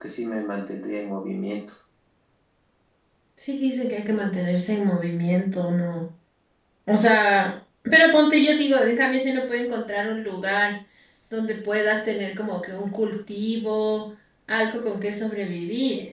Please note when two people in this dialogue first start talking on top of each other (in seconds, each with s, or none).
none